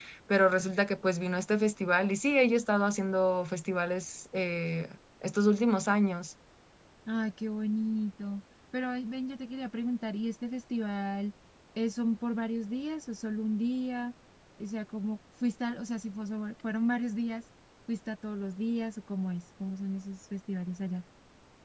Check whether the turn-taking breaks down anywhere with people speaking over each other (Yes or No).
No